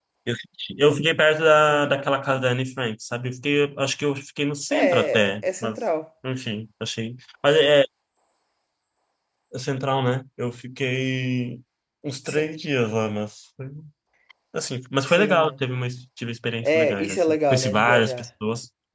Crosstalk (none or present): present